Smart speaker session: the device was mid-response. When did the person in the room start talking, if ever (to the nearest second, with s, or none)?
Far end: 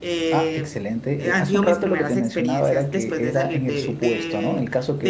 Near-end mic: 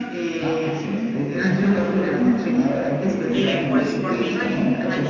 3 s